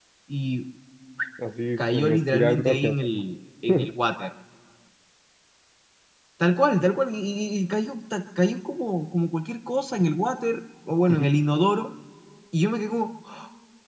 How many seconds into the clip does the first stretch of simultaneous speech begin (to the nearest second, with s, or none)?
2 s